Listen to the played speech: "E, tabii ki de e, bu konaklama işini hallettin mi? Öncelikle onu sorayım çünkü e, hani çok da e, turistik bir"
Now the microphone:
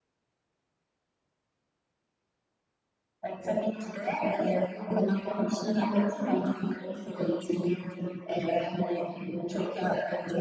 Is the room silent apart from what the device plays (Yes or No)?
Yes